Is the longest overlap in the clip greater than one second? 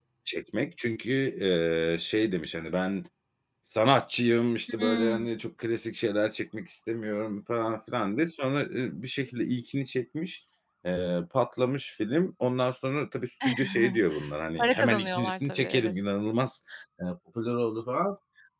Yes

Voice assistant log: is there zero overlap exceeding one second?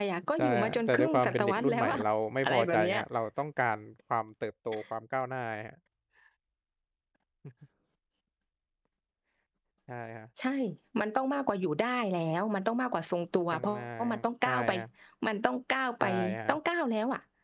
No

